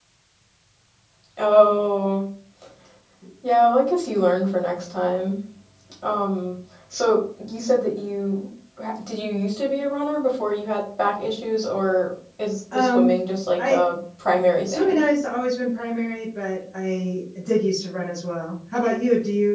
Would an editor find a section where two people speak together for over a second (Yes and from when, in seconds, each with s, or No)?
No